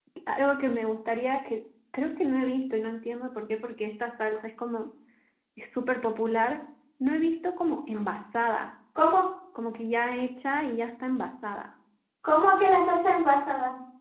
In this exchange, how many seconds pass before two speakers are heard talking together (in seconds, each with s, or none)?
none